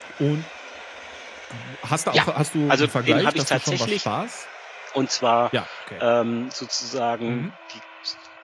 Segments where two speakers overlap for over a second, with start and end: 2.7-4.1

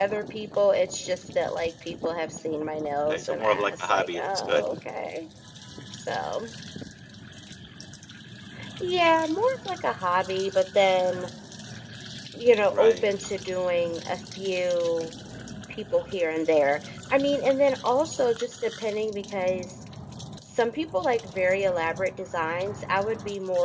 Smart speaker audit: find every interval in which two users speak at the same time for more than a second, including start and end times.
3.1-4.6

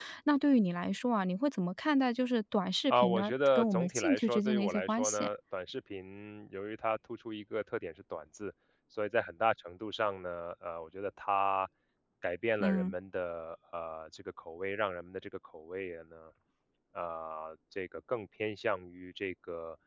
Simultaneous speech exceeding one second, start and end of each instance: 2.9-5.3

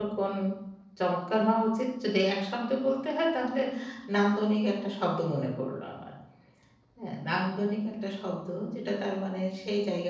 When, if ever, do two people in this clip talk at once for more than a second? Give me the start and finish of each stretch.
none

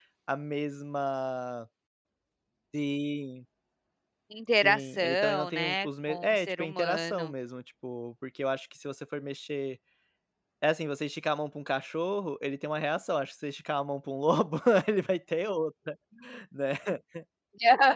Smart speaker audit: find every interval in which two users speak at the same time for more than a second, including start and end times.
4.6-7.3

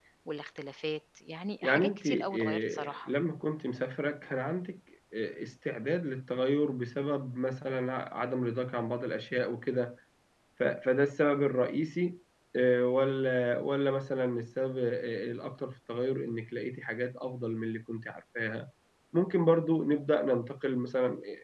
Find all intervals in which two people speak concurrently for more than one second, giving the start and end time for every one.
1.6-3.1

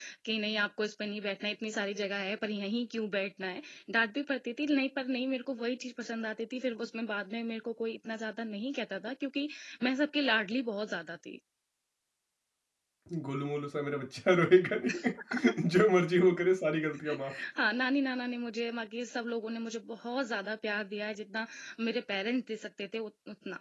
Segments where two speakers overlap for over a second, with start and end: none

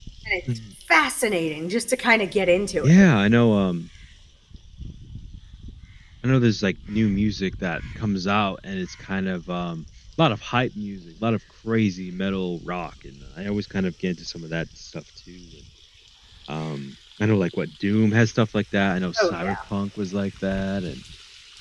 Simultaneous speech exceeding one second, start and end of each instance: none

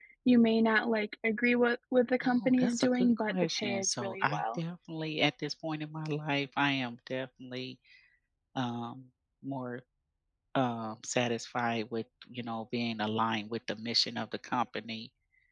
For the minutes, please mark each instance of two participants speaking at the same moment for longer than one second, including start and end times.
2.2-4.6

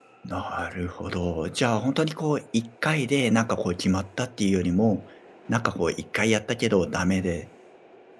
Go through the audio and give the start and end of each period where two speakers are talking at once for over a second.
none

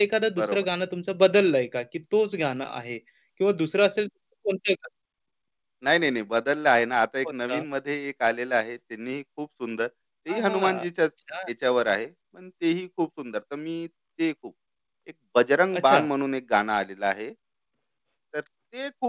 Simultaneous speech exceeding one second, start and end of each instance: none

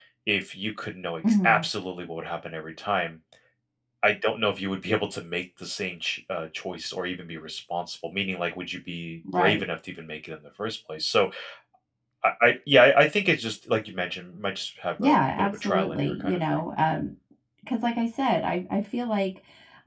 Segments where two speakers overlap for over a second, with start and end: 15.0-16.6

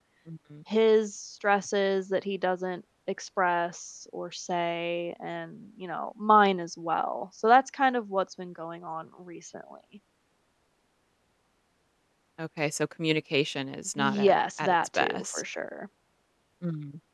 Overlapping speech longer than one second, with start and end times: 14.0-15.4

